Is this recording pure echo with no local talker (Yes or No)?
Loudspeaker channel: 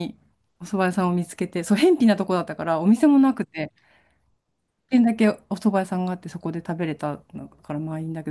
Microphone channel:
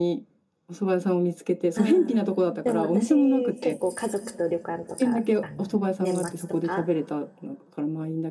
No